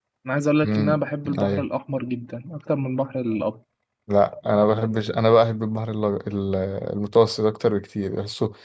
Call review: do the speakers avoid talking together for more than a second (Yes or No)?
Yes